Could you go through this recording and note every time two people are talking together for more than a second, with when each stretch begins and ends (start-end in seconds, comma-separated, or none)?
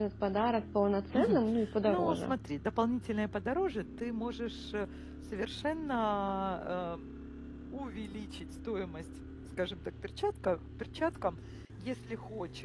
none